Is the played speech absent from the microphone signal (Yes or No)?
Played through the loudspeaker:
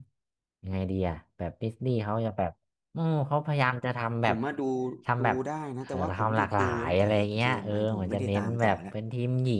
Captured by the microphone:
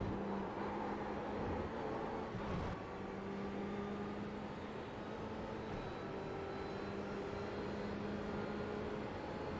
Yes